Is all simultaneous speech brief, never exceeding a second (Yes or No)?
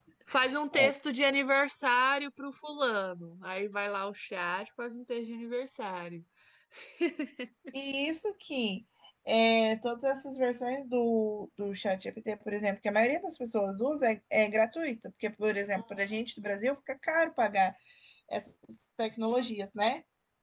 Yes